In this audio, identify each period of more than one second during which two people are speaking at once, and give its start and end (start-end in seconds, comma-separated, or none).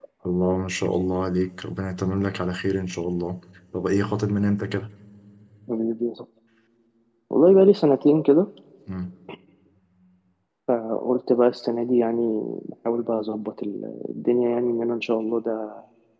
none